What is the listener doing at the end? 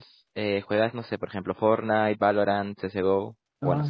taking over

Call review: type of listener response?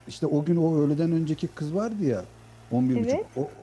listening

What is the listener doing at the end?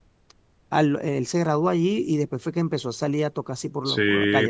taking over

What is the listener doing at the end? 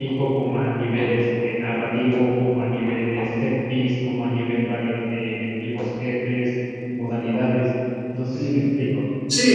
taking over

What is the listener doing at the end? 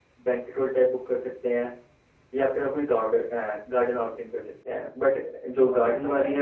listening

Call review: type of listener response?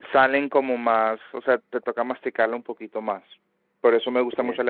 listening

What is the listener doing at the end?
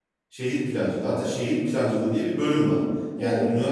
listening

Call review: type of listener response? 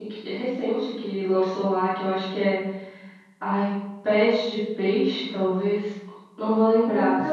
listening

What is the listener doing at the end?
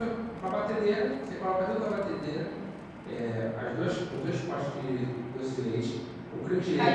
taking over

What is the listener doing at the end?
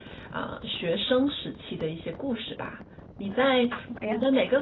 listening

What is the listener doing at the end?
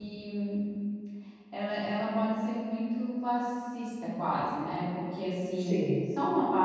listening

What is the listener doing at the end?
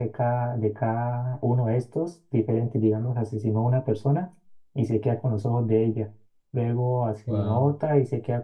listening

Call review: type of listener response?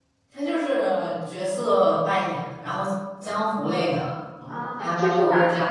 taking over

